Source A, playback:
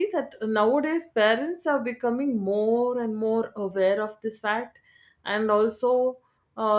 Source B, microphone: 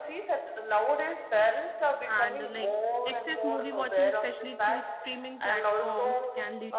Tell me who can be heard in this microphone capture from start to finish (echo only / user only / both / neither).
both